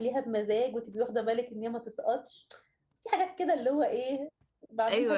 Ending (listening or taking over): taking over